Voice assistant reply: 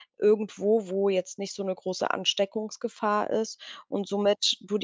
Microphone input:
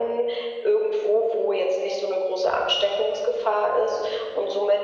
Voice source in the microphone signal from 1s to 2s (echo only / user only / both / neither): echo only